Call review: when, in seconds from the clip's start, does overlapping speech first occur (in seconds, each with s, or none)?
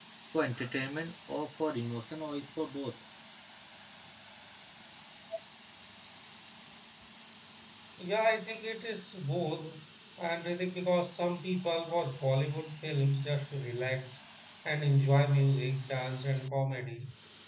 none